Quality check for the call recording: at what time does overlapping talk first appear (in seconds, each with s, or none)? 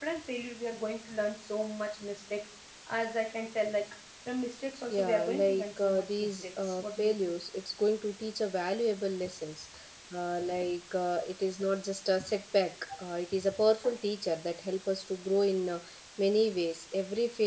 4.9 s